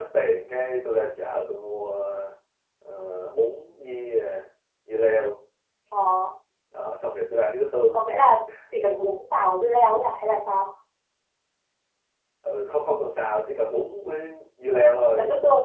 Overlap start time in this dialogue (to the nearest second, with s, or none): none